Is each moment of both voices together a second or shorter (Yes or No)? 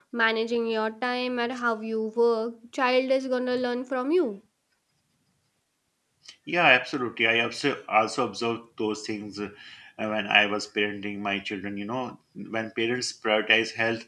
Yes